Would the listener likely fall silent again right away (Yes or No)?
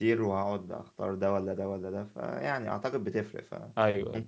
Yes